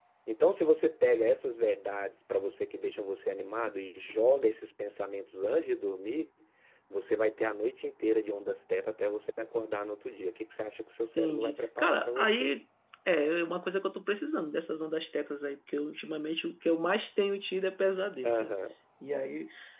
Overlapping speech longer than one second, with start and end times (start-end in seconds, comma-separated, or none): 11.2-12.5